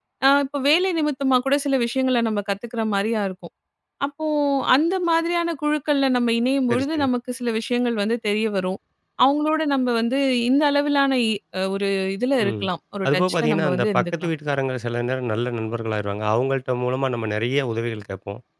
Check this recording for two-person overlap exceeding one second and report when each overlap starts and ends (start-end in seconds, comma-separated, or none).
13.1-14.3